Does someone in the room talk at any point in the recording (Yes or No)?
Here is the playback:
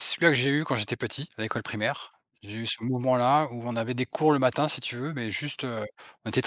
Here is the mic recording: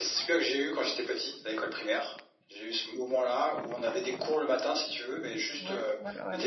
Yes